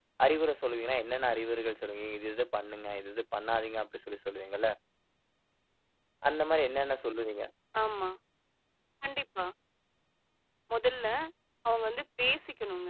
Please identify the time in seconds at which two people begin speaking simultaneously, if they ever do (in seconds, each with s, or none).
none